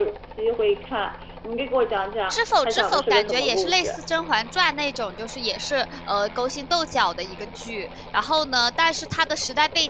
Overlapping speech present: Yes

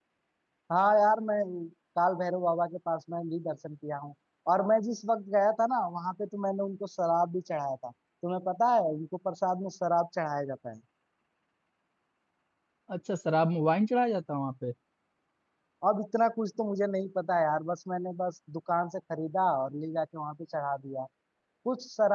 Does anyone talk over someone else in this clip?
No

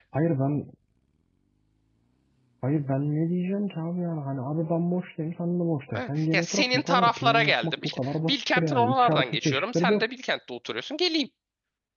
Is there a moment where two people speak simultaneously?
Yes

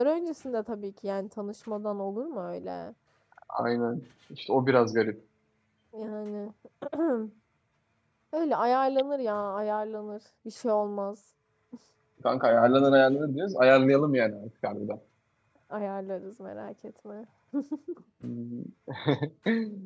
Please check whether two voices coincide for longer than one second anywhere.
No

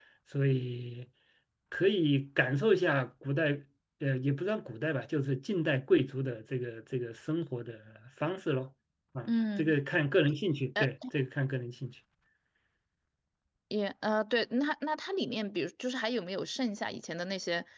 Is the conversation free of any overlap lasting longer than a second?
Yes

